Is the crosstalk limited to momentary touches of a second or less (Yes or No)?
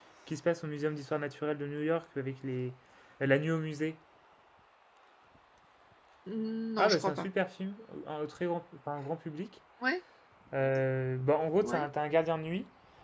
Yes